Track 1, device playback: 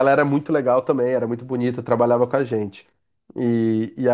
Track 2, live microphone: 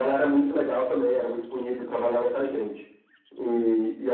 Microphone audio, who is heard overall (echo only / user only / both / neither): echo only